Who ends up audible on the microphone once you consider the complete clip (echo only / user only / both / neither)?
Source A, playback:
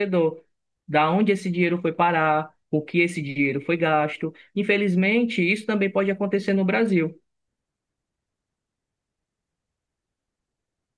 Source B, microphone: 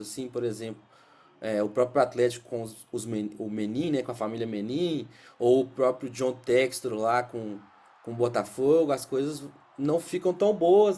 user only